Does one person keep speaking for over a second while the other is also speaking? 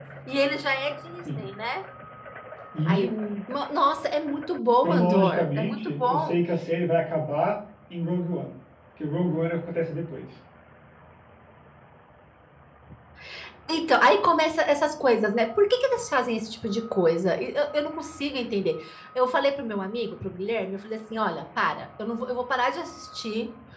Yes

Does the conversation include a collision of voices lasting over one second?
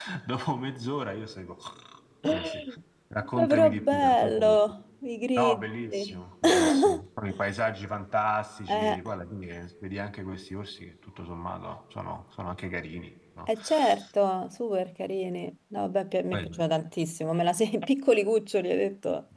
Yes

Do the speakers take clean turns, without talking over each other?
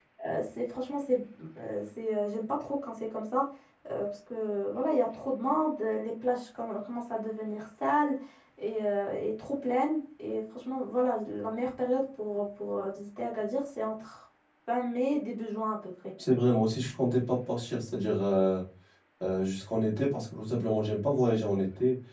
Yes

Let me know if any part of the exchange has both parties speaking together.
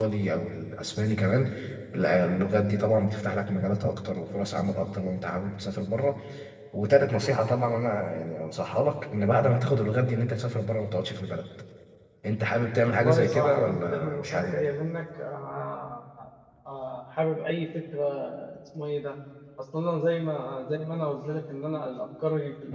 Yes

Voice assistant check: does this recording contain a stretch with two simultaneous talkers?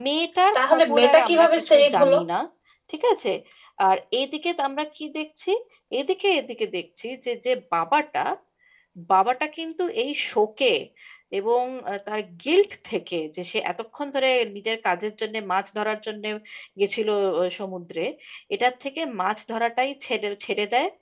Yes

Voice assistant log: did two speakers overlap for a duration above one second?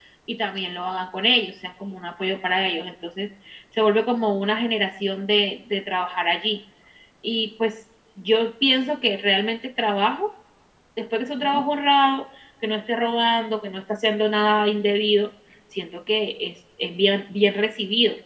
No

